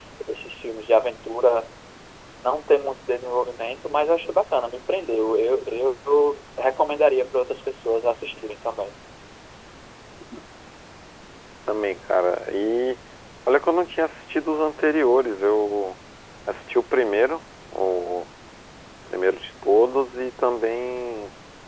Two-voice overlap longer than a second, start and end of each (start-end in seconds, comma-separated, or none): none